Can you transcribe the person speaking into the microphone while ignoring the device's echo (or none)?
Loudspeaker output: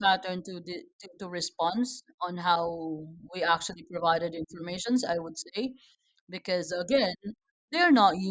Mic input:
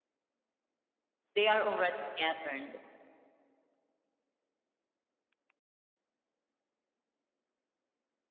They are already patterned.